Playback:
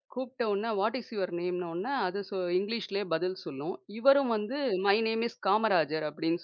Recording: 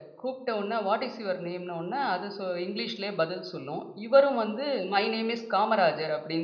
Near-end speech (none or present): none